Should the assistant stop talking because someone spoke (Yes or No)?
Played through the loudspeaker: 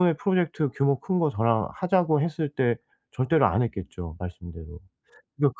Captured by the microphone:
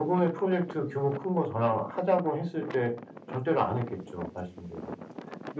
No